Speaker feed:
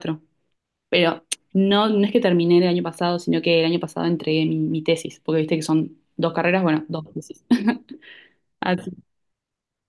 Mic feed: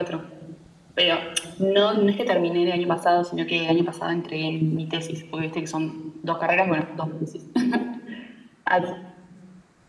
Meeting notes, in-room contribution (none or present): none